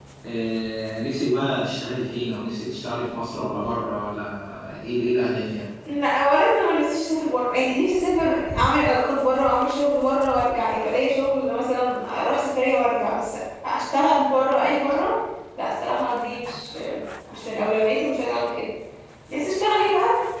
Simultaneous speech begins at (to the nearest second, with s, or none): none